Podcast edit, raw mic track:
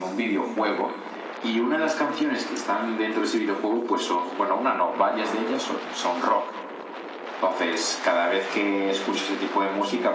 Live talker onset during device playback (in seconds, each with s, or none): none